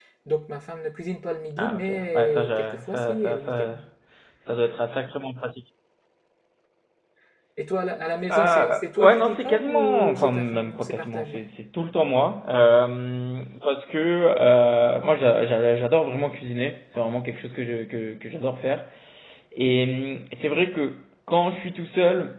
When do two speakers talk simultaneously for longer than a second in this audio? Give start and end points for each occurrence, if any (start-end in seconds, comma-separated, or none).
1.6-3.8, 8.3-11.4